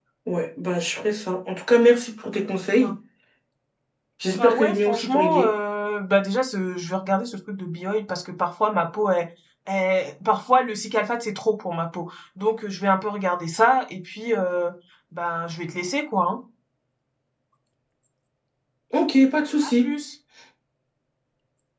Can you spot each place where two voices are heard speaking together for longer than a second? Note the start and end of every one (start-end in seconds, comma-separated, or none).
4.3-5.5